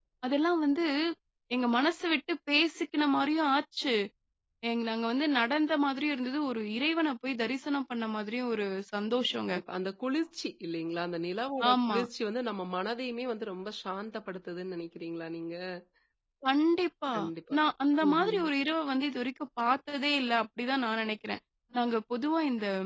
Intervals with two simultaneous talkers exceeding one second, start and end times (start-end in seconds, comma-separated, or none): none